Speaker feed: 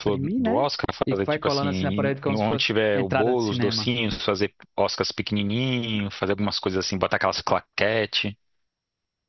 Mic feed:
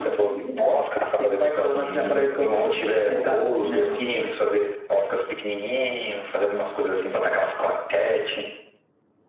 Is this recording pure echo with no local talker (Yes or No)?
Yes